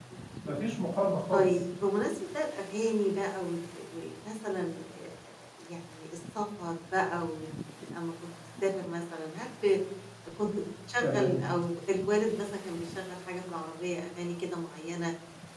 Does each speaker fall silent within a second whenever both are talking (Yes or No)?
Yes